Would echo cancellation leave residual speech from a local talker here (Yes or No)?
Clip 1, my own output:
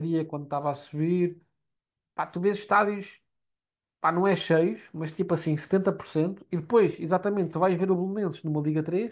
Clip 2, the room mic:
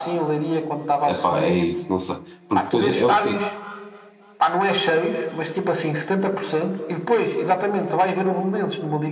Yes